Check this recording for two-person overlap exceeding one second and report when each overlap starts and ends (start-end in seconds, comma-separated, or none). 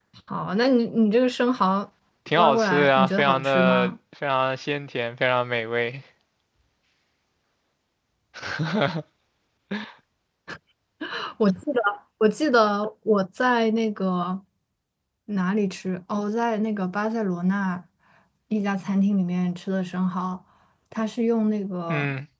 2.4-3.9